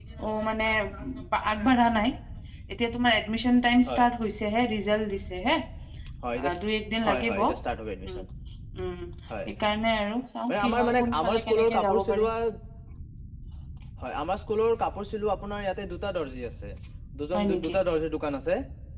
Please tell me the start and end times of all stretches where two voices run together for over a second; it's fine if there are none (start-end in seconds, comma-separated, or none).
10.5-12.2